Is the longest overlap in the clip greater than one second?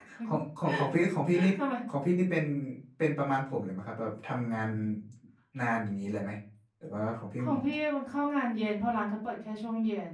No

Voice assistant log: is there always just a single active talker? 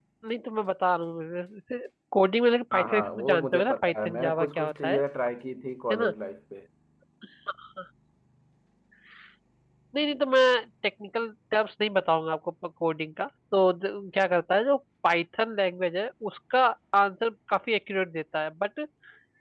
No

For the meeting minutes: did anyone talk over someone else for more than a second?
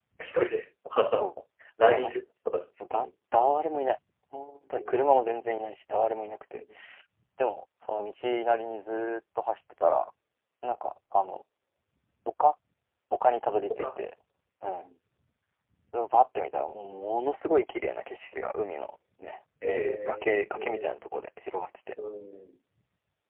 Yes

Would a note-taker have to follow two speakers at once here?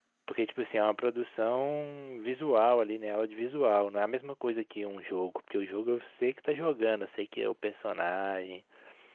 No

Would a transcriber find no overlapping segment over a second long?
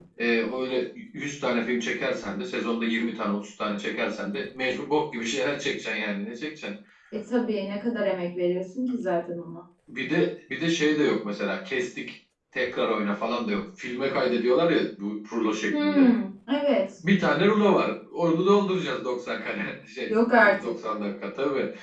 Yes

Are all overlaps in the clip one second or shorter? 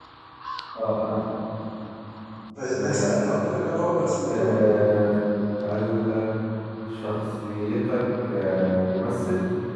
Yes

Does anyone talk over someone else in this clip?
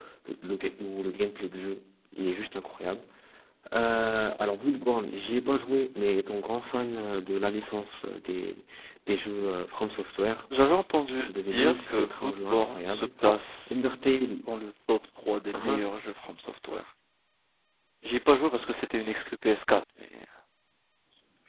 Yes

